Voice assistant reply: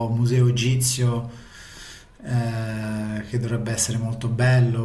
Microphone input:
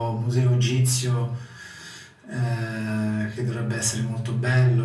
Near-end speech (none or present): none